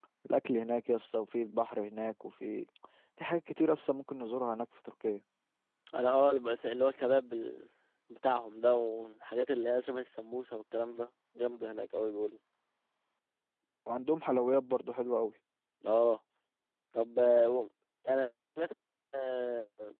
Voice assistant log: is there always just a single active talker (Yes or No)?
Yes